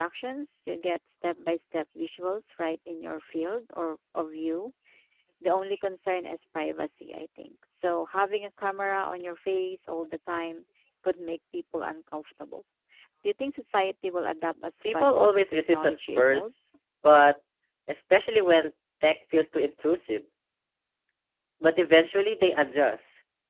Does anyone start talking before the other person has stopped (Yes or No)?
Yes